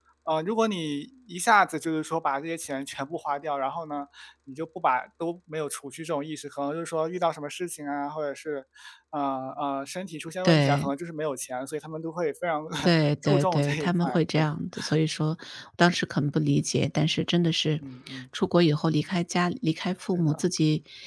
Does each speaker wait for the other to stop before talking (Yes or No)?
No